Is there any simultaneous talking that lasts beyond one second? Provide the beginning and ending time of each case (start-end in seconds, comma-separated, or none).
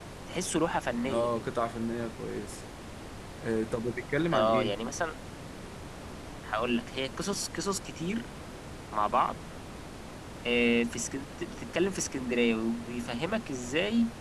none